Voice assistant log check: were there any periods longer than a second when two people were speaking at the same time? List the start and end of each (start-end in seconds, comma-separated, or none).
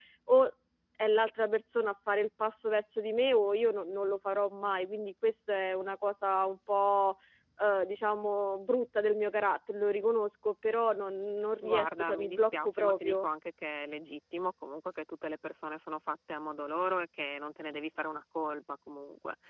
11.6-13.3